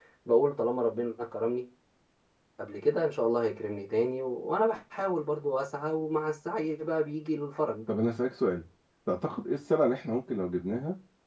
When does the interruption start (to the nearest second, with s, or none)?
none